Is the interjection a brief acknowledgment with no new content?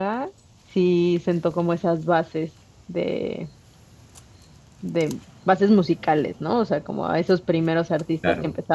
Yes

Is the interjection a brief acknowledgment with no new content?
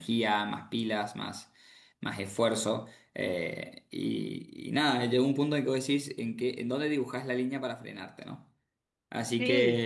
Yes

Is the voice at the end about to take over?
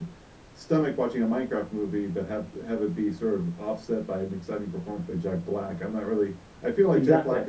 No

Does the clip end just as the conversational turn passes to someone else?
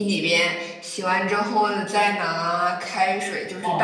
Yes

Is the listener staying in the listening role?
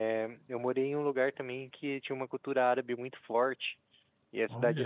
Yes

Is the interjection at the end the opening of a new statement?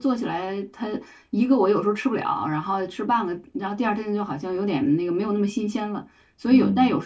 No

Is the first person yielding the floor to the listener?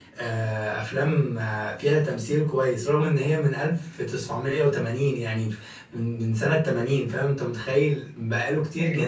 No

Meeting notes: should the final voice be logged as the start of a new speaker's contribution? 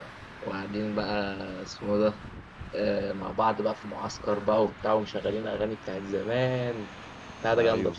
Yes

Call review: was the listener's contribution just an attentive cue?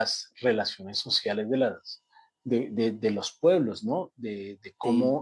Yes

